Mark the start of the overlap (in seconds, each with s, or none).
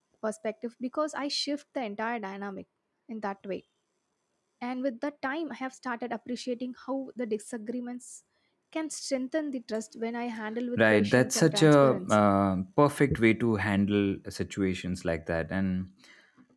10.8 s